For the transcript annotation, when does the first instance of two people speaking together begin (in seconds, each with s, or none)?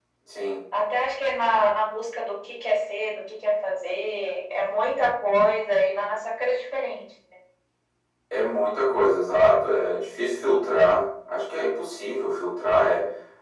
none